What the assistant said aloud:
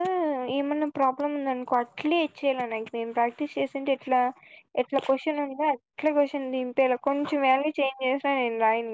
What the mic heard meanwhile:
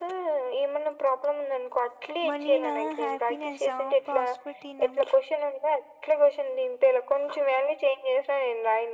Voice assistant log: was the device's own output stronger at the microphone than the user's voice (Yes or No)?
Yes